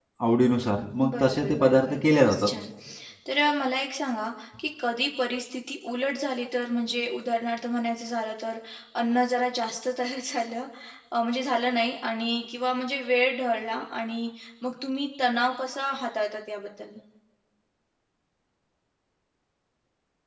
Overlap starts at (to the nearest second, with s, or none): 1 s